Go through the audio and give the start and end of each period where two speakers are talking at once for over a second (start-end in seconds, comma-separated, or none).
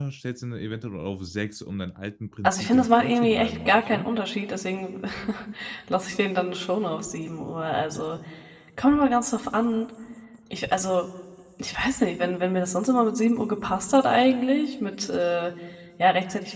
2.4-4.0